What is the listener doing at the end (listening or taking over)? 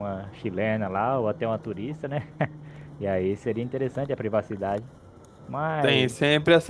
taking over